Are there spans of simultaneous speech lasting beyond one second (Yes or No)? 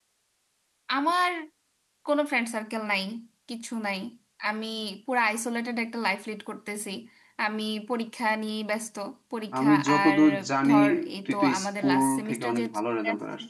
Yes